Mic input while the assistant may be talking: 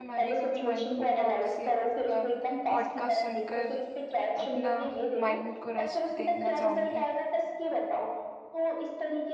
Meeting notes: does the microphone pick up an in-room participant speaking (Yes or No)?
Yes